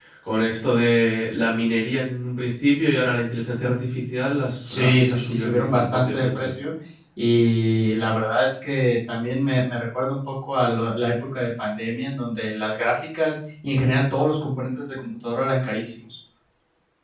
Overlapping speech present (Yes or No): Yes